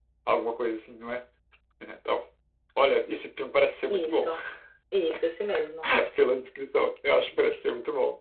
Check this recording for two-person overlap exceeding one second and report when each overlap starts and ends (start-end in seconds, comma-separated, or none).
none